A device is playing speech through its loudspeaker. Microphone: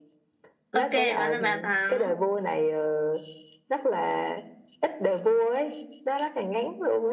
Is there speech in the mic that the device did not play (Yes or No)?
Yes